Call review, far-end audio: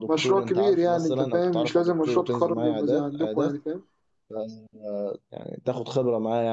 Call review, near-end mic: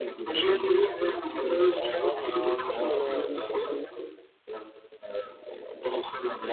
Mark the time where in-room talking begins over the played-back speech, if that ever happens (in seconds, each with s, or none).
1.8 s